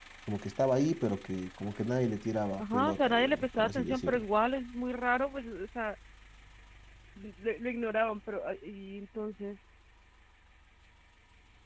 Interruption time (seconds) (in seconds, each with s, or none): 2.6 s